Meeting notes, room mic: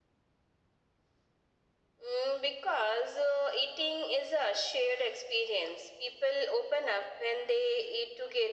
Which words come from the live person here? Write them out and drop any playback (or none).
none